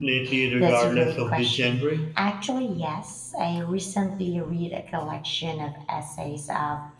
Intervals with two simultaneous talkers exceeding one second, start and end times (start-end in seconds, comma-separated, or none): 0.6-1.8